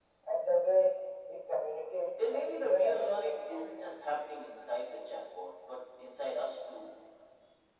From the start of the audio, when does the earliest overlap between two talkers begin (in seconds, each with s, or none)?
2.2 s